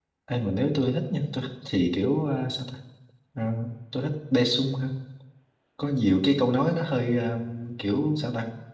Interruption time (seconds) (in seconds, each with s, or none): none